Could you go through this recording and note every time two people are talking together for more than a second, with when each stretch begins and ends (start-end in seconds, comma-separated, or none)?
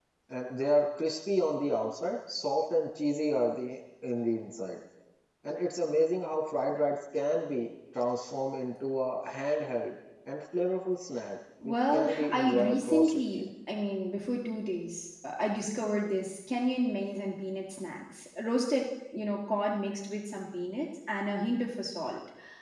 11.6-13.4